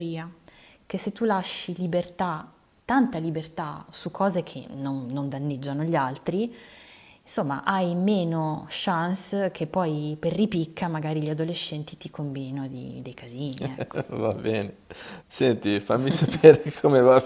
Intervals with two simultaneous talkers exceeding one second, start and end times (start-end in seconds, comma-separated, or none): none